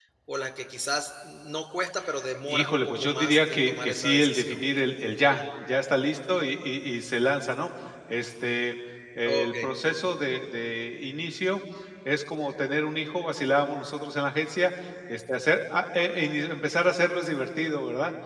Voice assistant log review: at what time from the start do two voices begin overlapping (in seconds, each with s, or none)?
2.5 s